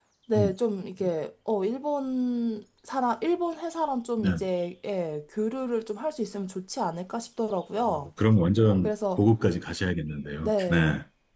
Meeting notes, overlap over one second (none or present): none